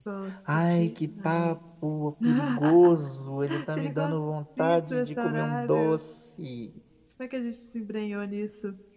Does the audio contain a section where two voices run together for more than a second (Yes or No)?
Yes